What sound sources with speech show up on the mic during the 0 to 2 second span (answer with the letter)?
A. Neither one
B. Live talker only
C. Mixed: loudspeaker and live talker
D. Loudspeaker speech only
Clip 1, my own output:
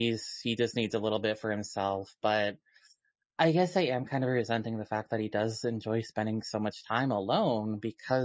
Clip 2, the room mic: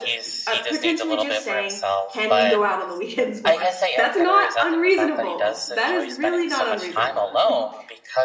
C